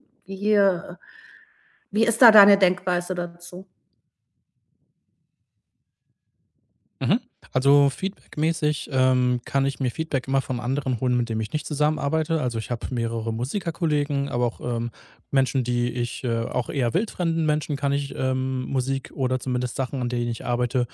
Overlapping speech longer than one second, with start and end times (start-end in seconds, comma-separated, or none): none